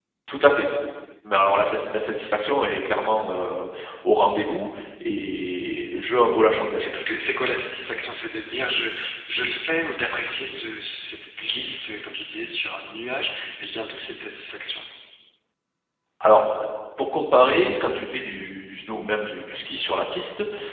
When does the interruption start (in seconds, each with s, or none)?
none